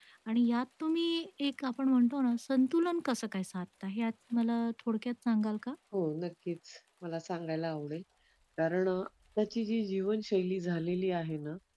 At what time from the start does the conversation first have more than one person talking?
none

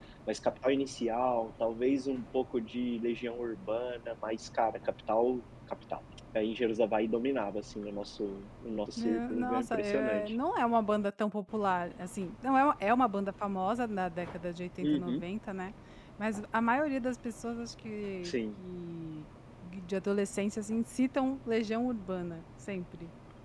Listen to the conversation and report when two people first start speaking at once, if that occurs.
9.0 s

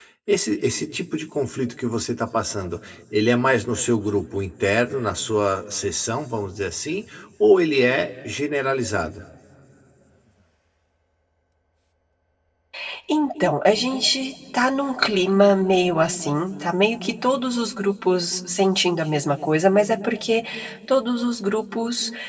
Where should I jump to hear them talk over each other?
none

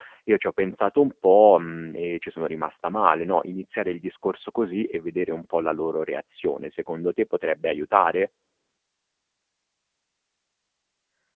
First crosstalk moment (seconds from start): none

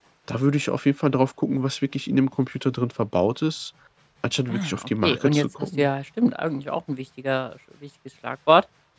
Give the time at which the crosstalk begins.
4.5 s

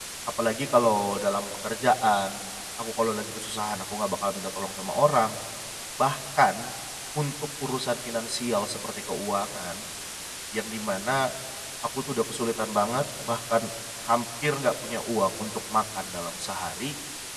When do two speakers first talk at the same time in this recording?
none

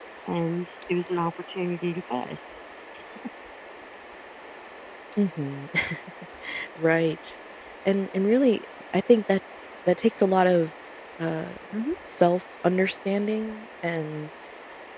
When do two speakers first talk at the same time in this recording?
none

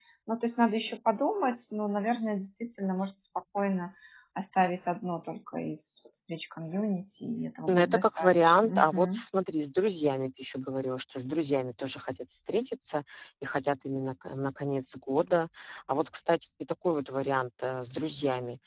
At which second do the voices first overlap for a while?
7.7 s

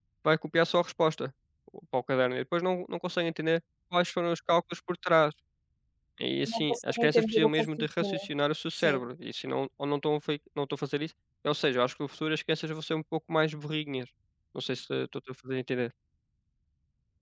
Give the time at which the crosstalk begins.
6.5 s

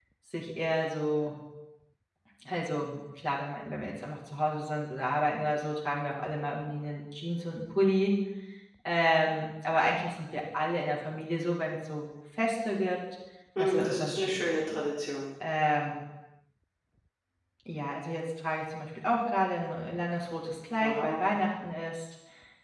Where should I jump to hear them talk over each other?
13.6 s

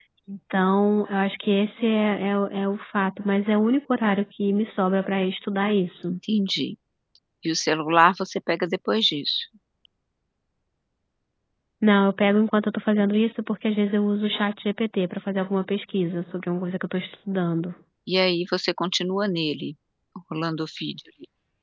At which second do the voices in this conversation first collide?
none

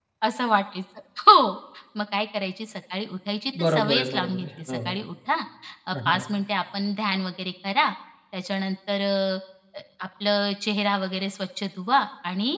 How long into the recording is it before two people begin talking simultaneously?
3.6 s

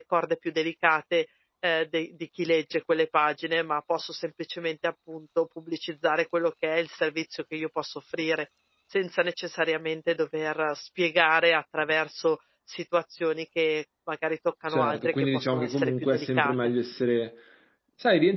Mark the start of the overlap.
14.7 s

